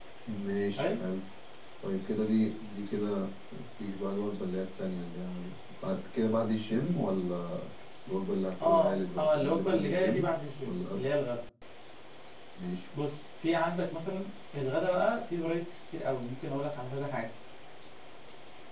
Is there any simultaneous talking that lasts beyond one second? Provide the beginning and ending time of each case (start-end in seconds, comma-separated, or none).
8.6-10.2